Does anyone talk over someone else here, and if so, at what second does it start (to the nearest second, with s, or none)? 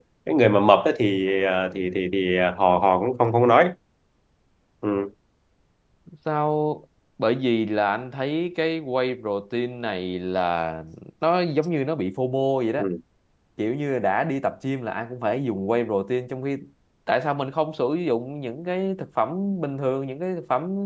none